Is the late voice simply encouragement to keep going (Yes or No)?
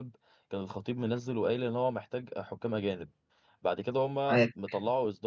Yes